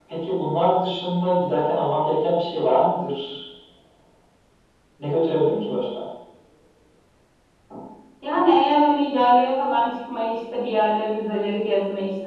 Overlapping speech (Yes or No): No